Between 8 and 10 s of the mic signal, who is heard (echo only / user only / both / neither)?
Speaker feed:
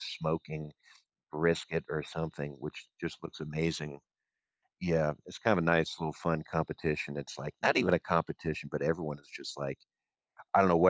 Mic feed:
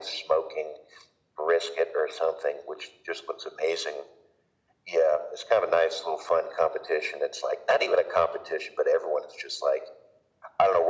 echo only